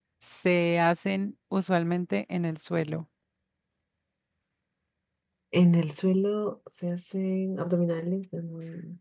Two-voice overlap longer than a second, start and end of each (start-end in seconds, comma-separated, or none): none